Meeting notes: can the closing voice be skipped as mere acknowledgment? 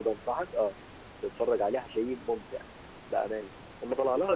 No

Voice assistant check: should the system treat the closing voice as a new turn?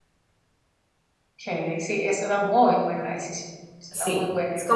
Yes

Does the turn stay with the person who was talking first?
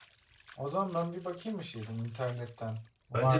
No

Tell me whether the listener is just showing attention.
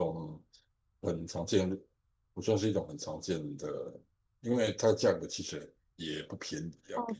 No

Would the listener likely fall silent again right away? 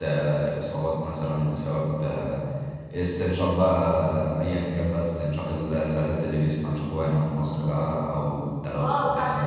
No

